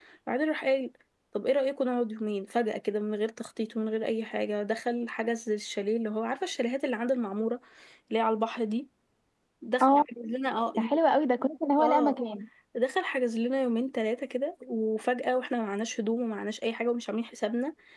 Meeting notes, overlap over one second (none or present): none